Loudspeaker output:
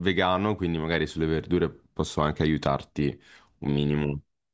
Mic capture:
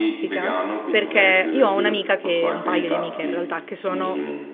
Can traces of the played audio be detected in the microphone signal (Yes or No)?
Yes